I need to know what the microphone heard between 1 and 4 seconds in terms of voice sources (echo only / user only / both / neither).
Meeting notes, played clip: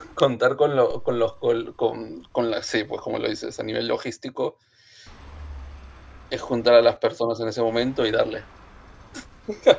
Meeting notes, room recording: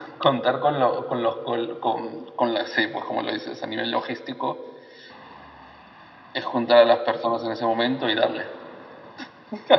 echo only